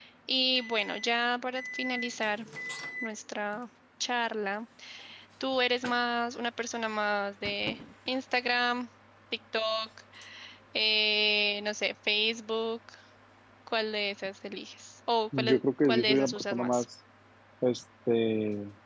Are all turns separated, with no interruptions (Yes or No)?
No